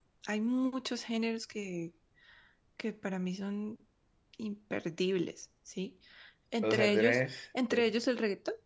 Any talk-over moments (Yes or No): Yes